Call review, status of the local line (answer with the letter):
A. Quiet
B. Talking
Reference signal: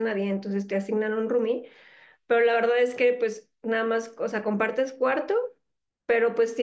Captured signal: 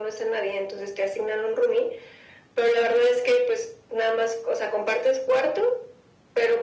A